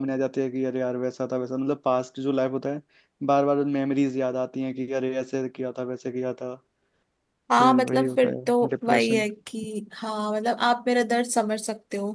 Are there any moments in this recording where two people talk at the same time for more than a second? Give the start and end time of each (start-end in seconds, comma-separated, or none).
7.6-9.2